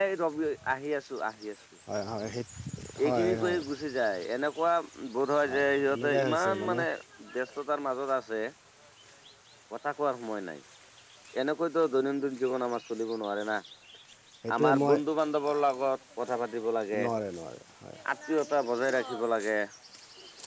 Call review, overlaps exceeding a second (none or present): present